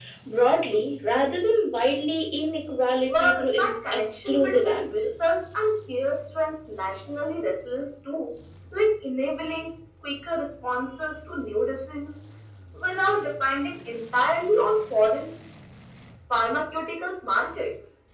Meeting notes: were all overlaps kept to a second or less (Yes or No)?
No